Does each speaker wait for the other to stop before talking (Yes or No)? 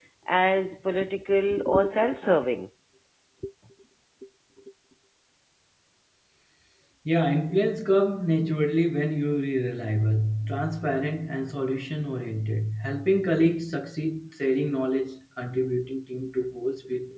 Yes